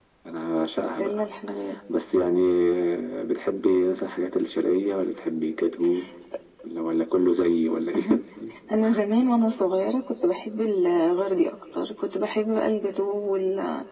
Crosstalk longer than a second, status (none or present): none